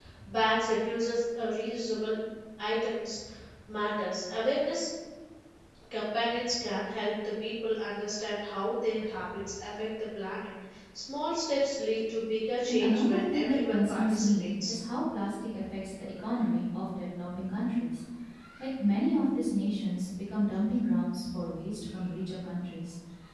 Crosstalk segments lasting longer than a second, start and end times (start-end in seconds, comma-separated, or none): 12.7-14.8